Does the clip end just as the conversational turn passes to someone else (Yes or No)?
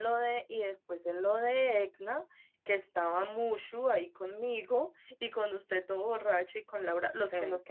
No